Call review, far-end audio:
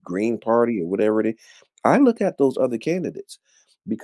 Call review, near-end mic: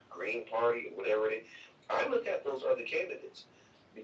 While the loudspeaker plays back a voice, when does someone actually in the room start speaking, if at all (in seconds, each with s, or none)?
none